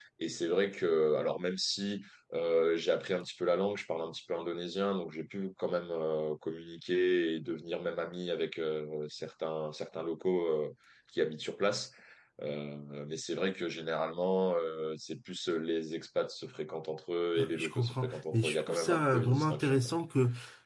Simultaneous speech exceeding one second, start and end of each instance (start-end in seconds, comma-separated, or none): 17.4-19.8